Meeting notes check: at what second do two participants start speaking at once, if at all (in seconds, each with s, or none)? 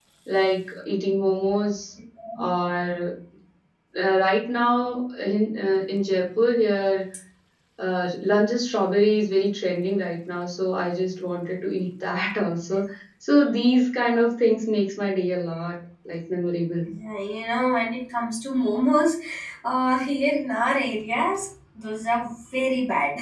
none